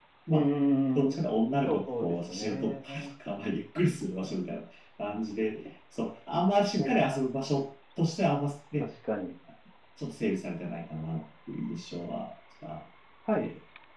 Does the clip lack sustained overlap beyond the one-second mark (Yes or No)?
No